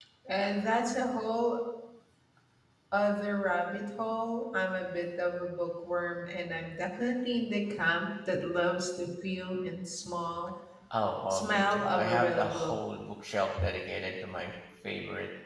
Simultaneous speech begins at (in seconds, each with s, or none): 11.3 s